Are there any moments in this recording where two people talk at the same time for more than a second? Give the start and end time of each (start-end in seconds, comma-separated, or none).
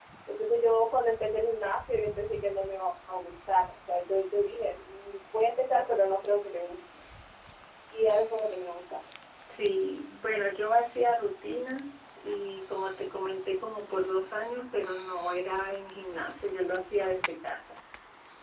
none